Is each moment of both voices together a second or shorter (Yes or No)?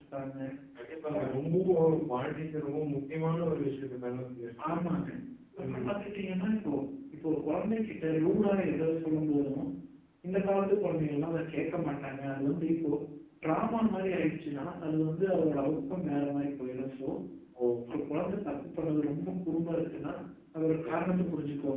Yes